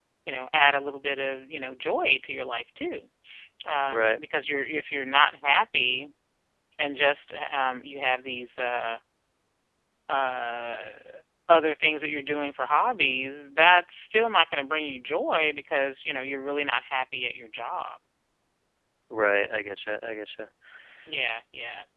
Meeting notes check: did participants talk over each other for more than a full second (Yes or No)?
No